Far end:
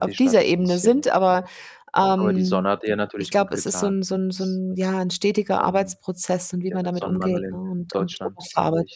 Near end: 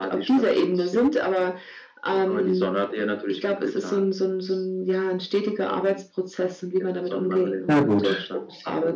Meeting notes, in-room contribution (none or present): present